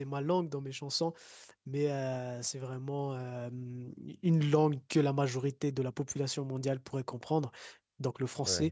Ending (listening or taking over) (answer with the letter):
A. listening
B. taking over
A